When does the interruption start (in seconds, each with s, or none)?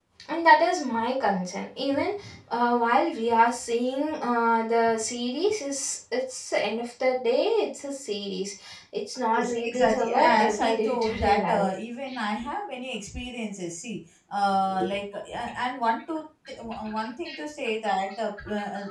9.3 s